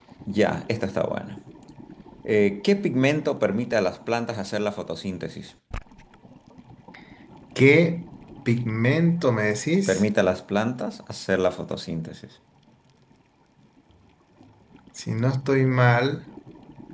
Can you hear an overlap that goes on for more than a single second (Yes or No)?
No